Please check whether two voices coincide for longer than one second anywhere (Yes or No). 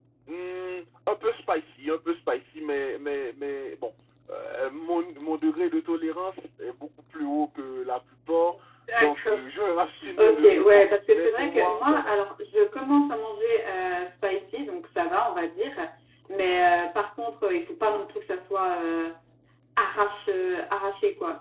Yes